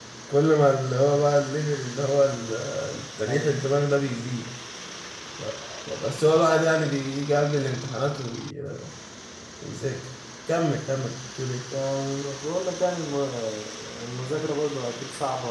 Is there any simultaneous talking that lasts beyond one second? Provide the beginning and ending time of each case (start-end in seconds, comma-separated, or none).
none